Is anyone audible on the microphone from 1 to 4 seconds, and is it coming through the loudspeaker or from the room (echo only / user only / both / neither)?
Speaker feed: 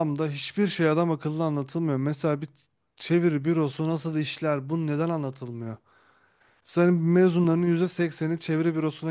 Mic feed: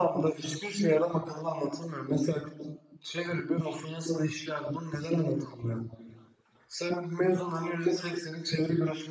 echo only